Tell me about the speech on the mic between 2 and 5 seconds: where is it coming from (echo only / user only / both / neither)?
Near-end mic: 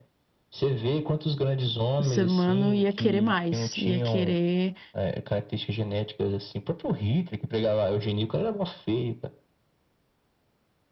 both